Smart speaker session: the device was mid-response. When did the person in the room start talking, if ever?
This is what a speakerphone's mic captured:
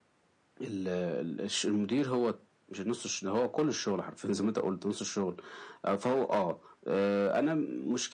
none

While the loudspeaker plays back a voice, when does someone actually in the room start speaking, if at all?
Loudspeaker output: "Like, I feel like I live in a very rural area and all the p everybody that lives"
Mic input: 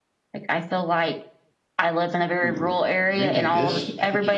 2 s

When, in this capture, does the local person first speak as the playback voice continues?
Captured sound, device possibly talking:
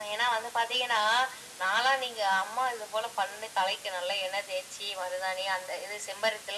none

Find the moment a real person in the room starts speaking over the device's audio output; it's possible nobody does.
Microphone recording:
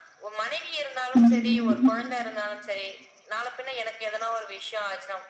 1 s

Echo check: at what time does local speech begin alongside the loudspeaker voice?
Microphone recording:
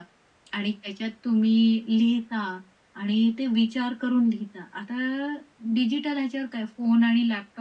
none

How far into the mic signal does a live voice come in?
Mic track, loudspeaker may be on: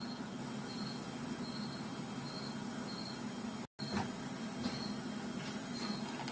none

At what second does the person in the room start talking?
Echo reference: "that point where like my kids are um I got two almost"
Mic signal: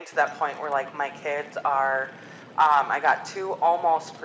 none

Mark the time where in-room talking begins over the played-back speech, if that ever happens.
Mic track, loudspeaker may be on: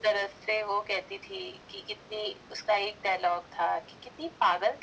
none

